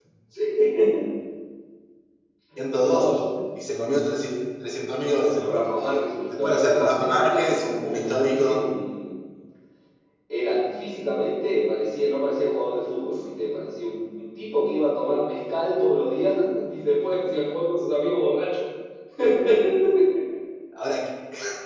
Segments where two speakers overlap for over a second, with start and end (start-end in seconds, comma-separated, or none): 6.4-8.6